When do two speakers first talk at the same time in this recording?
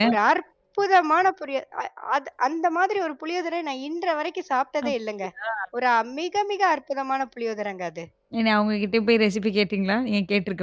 none

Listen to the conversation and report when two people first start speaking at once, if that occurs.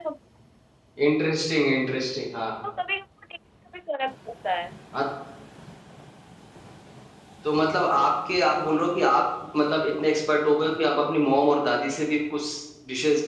none

